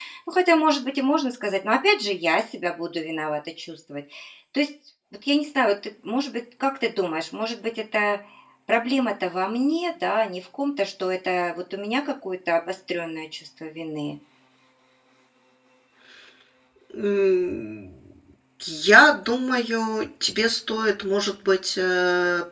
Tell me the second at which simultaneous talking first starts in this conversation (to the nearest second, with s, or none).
none